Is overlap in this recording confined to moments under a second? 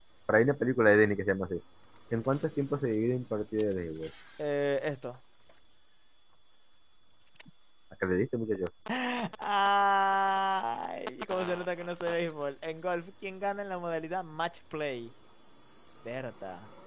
Yes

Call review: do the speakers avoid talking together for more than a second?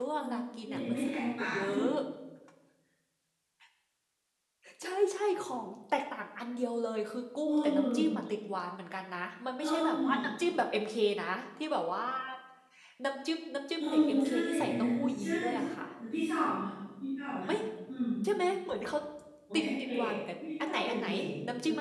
No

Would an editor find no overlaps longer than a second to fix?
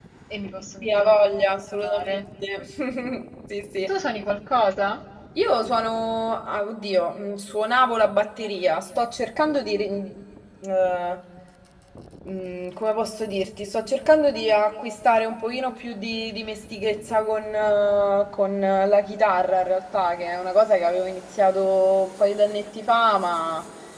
No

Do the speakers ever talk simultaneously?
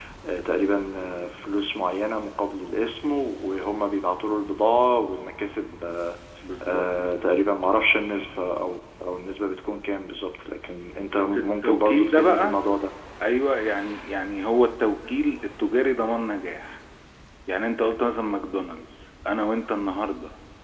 Yes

